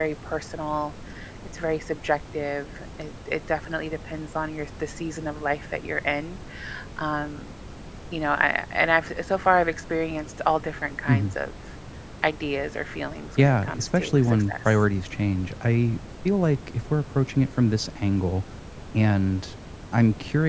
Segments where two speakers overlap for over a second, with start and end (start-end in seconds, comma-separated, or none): 13.4-14.8